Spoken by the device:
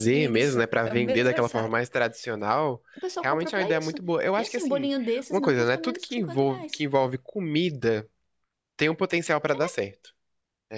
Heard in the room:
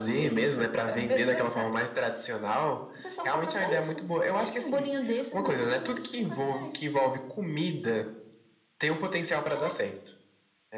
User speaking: No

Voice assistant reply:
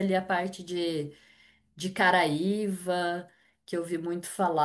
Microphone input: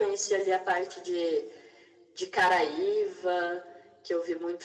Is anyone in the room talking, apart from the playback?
No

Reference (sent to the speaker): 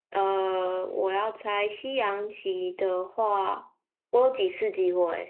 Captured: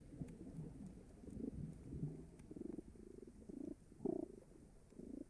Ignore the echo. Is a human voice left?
No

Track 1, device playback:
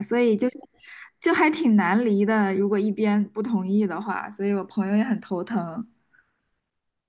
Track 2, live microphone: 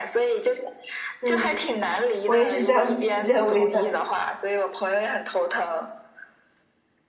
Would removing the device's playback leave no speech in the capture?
No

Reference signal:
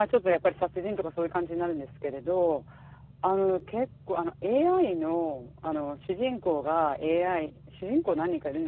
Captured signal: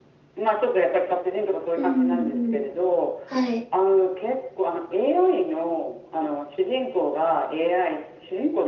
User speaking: Yes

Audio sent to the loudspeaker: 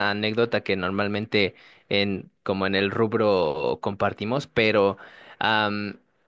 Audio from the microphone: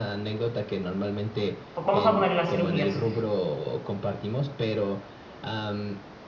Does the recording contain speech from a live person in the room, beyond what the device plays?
Yes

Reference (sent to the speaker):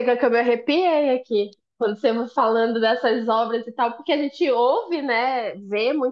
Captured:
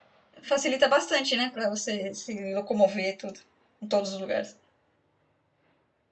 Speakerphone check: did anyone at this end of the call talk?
Yes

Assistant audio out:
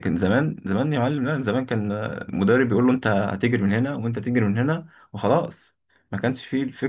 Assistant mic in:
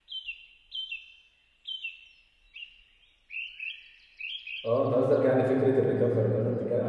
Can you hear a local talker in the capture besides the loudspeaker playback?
Yes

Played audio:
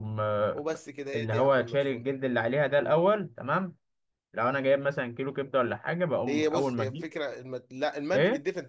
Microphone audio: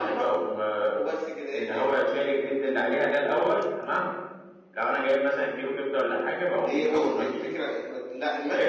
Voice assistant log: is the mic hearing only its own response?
Yes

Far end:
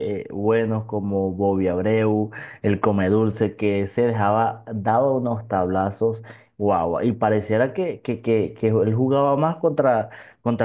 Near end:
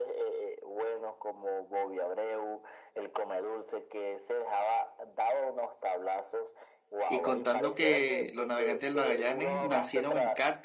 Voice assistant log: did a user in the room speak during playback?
Yes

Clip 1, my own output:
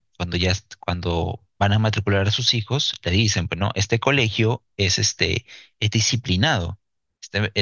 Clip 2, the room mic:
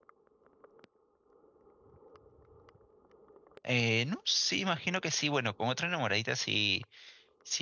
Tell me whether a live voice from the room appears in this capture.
Yes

